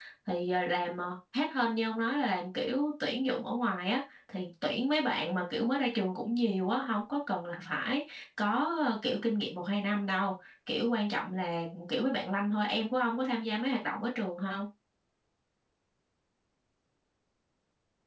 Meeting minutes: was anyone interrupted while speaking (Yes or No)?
No